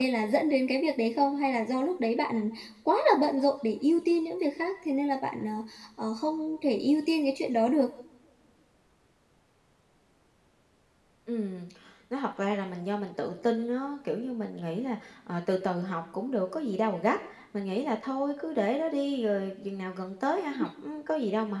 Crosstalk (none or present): none